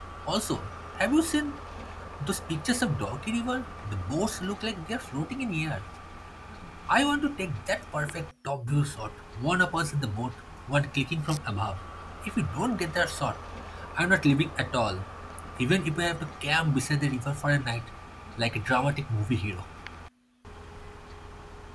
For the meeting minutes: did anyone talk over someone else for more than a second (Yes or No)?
No